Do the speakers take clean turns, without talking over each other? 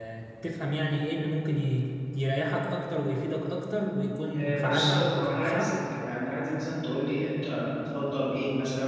No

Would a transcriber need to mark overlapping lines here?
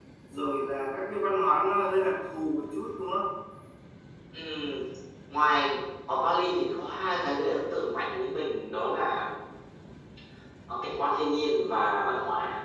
No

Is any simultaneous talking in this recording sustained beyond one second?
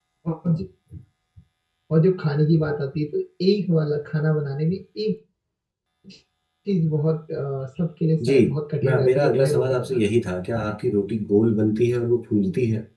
Yes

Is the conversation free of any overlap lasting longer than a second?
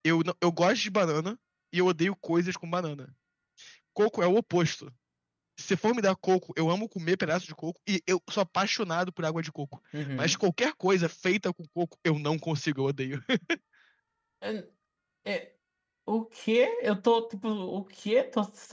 Yes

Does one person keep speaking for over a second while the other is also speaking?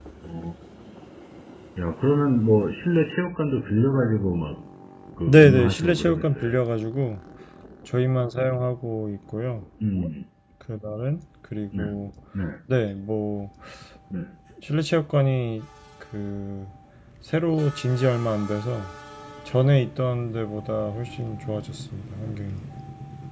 Yes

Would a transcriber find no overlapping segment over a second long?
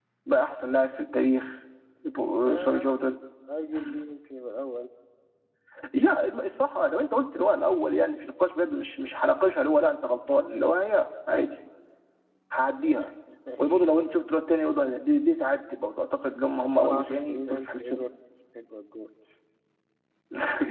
No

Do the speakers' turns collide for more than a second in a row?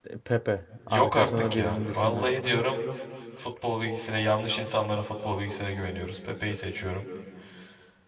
Yes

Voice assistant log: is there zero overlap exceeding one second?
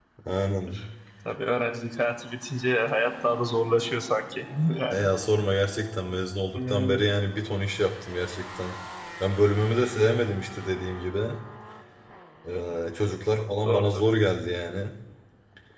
Yes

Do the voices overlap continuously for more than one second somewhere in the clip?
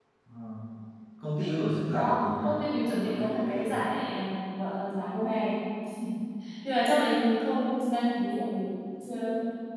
Yes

